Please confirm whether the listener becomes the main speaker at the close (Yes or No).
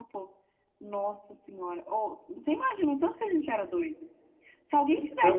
No